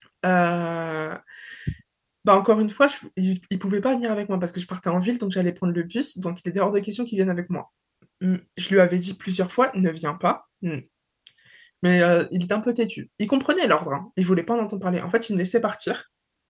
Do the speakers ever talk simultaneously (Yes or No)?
No